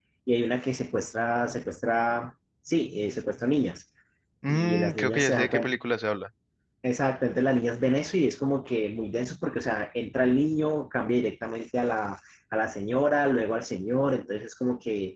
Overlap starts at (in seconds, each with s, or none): 4.5 s